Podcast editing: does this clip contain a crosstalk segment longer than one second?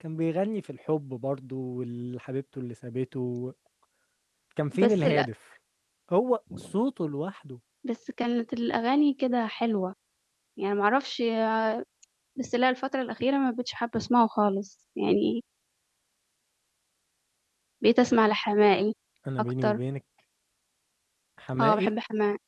No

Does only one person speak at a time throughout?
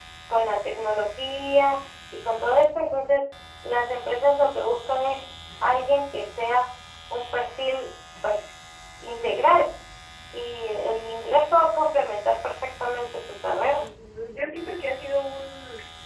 Yes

